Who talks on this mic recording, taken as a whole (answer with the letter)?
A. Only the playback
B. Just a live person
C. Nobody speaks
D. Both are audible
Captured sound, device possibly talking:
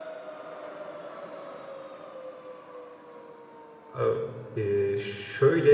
B